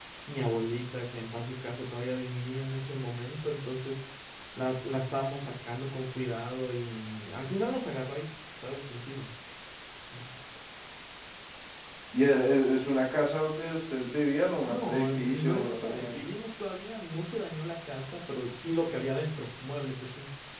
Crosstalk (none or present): present